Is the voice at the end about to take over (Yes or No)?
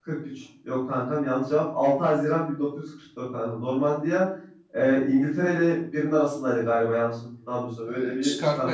Yes